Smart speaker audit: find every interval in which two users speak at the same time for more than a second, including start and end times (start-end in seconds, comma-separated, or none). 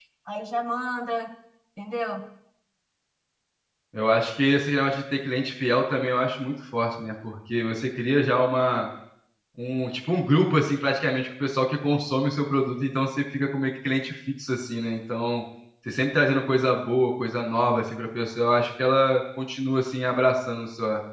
none